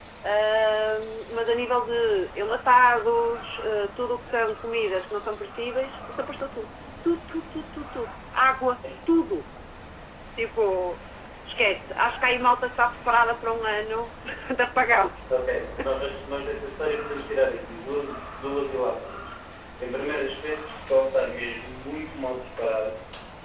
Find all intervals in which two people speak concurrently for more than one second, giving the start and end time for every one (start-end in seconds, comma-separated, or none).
none